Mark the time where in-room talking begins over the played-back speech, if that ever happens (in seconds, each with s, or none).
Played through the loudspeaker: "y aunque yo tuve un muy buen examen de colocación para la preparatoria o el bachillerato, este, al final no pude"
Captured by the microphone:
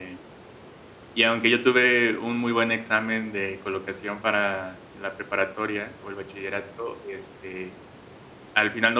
none